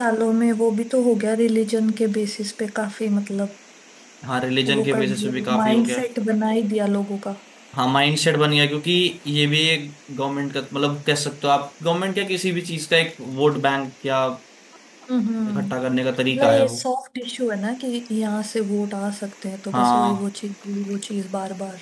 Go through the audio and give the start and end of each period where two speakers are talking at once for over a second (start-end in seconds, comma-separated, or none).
4.7-6.0